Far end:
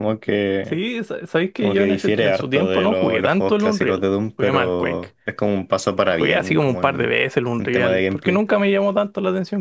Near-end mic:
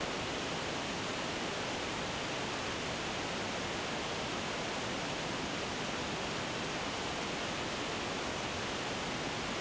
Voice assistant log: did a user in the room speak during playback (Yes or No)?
No